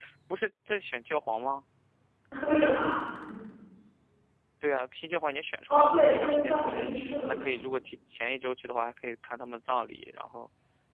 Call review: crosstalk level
present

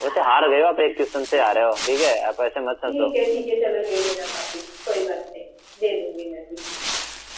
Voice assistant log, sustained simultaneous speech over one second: none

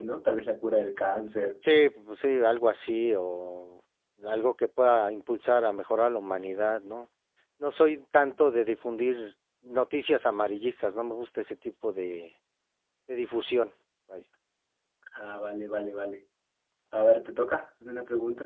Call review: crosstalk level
none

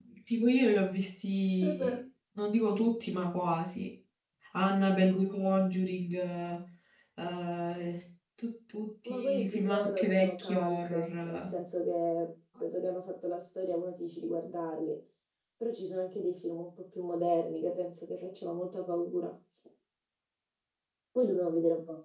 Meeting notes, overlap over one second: present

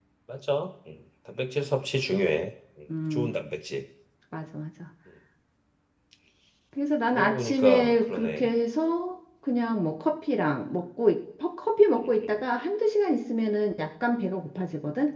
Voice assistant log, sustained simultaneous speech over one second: present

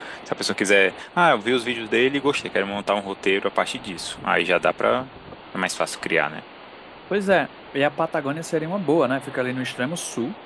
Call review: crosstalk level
none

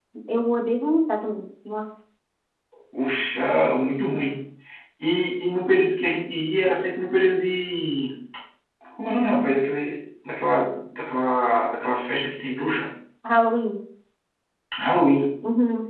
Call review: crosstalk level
none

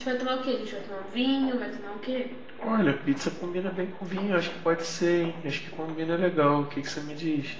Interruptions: none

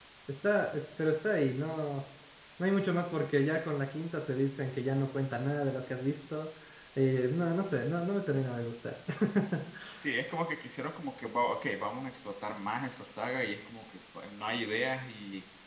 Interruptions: none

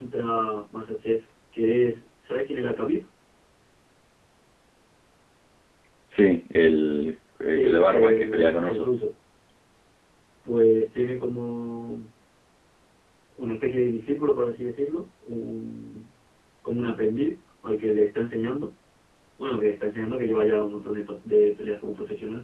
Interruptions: present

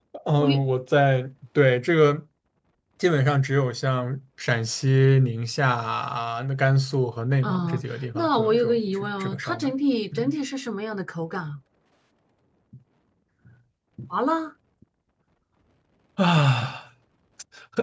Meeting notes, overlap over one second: present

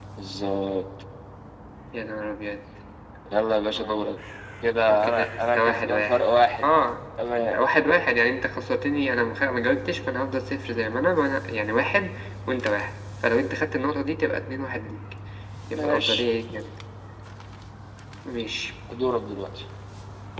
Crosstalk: present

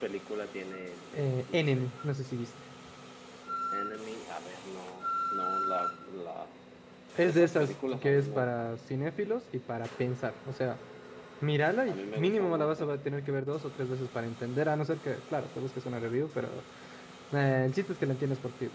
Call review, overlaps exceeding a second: present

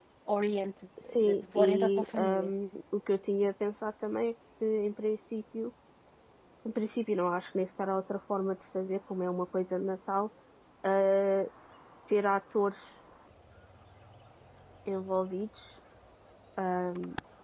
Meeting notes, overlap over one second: present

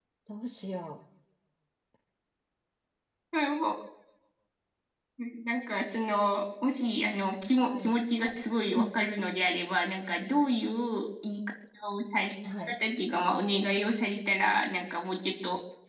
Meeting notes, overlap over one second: none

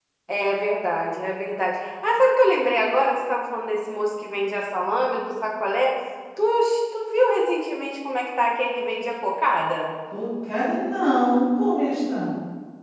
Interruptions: none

